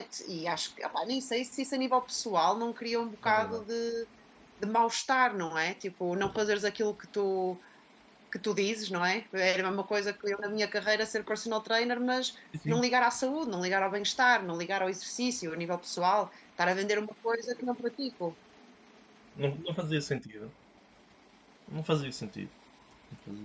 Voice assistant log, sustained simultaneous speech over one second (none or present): none